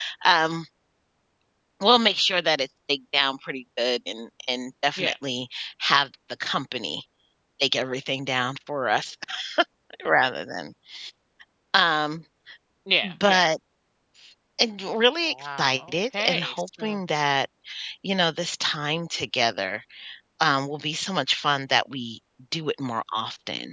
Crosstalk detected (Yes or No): Yes